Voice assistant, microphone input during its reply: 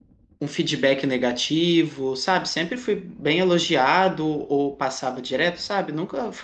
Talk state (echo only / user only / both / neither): user only